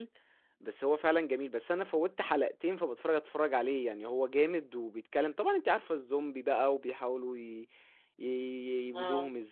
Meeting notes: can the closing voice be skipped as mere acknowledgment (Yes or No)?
Yes